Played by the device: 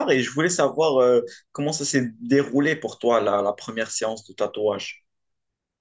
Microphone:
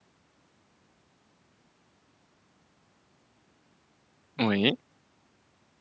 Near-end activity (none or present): present